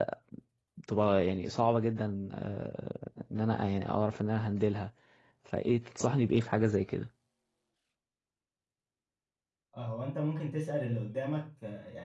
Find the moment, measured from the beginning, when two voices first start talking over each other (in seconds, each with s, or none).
none